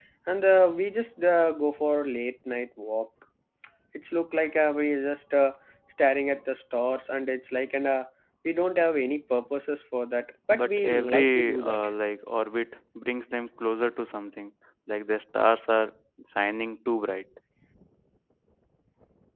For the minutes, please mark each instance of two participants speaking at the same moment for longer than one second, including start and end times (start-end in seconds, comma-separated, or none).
10.5-11.8